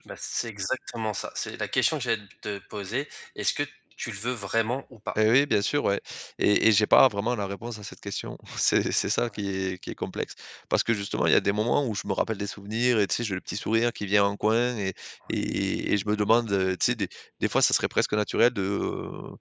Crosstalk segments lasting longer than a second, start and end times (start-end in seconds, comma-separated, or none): none